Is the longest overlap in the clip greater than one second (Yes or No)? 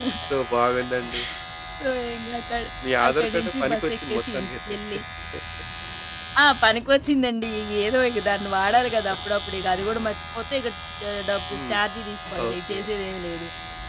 Yes